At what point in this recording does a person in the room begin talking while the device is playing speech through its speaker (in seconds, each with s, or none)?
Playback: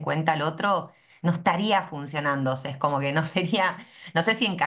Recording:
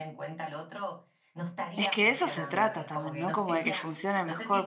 1.7 s